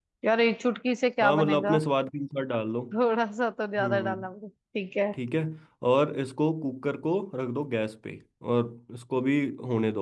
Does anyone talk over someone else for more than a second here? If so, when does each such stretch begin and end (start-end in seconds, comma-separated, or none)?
none